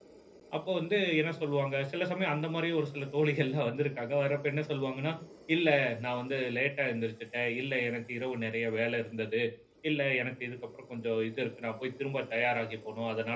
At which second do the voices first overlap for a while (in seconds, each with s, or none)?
none